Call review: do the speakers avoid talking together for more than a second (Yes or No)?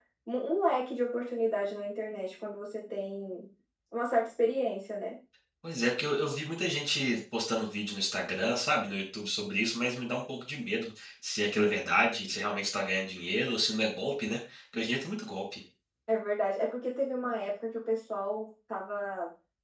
Yes